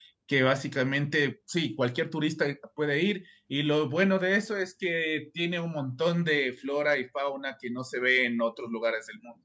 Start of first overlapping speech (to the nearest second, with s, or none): none